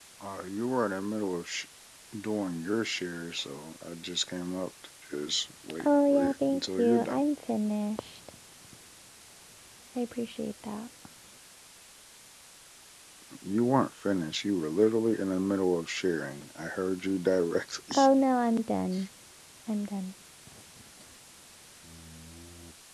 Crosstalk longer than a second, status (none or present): present